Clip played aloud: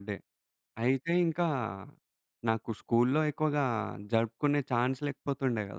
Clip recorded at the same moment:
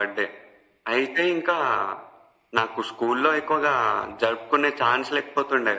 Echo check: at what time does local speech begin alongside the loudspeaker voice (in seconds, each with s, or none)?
none